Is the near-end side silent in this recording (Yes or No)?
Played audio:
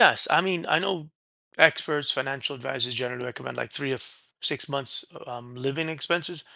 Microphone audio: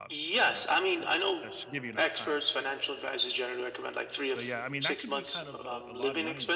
No